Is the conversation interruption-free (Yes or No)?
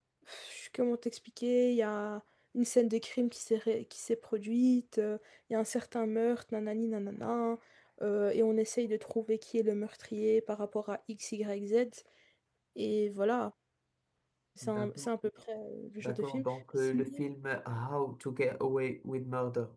No